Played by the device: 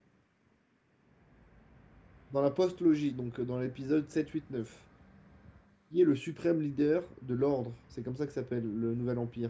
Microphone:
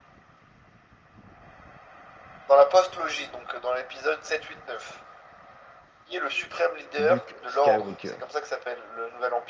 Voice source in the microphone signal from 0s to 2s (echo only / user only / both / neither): neither